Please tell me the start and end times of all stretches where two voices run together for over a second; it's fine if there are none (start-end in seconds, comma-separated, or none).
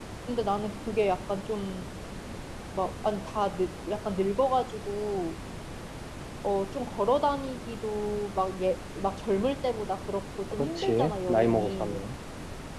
10.5-12.0